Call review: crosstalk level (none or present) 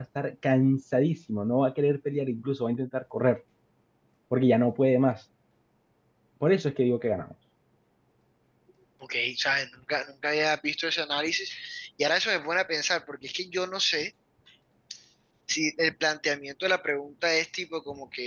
none